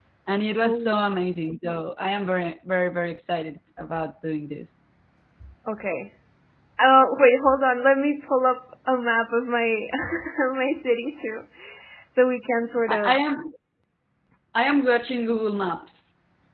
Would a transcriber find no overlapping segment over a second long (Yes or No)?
Yes